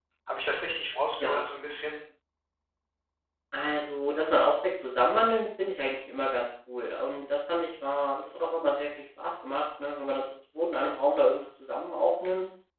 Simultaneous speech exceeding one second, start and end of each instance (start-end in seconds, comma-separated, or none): none